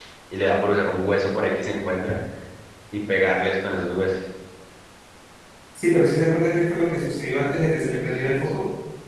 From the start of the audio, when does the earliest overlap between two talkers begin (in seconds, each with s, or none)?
none